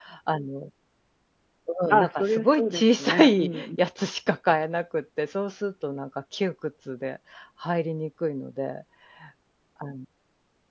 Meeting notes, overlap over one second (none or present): present